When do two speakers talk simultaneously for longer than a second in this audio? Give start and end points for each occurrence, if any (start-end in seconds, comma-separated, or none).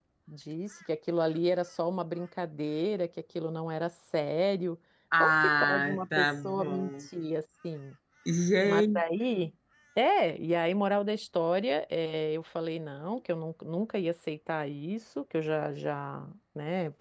5.2-7.1